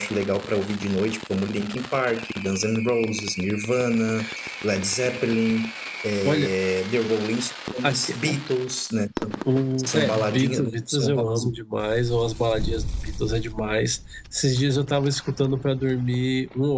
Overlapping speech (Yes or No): Yes